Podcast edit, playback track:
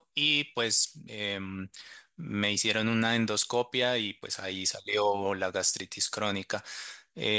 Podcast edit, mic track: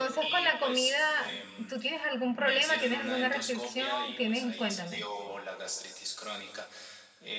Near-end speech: present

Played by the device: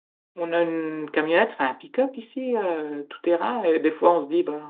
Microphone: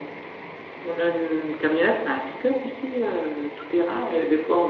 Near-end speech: none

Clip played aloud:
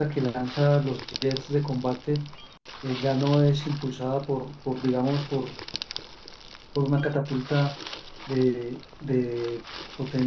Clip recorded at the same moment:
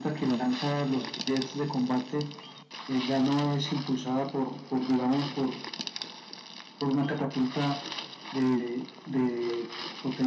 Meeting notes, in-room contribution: none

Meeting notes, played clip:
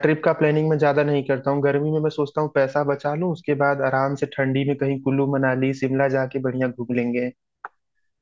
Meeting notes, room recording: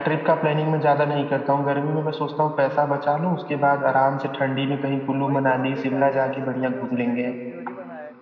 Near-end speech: present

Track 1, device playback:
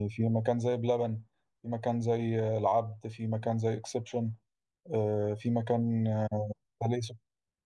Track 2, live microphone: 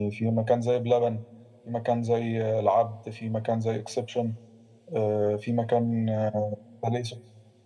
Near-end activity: none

